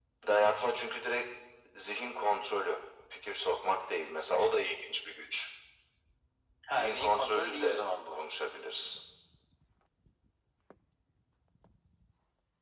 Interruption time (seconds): 6.7 s

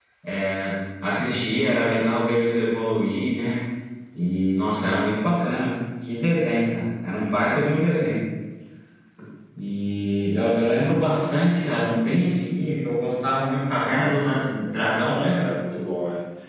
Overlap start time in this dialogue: 13.8 s

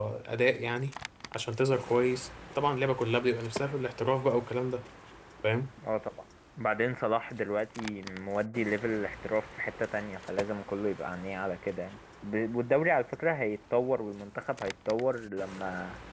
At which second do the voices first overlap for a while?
none

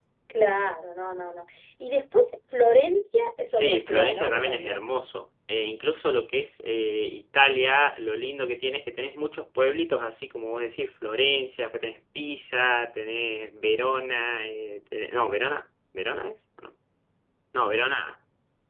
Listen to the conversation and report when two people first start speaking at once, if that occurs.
3.5 s

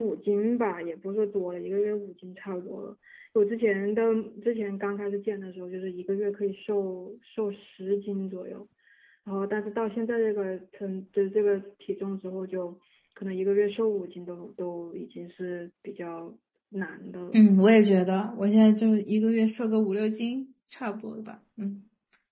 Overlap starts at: none

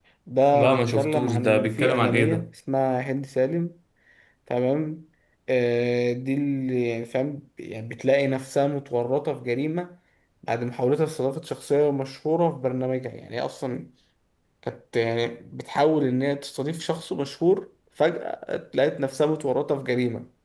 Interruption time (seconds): 0.5 s

